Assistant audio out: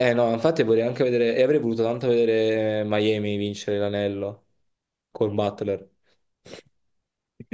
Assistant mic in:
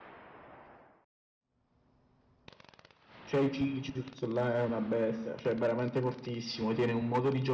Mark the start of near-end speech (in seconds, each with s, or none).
3.2 s